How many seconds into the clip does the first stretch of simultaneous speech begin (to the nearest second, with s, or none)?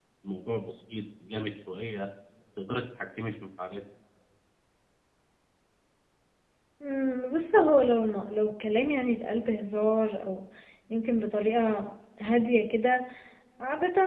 none